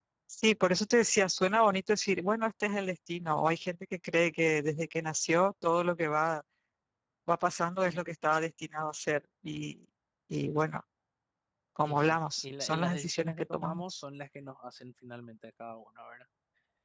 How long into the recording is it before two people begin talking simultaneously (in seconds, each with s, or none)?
11.8 s